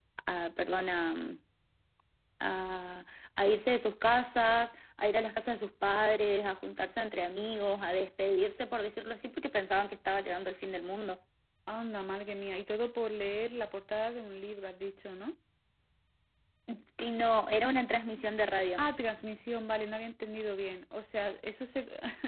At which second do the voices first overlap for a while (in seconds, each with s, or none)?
none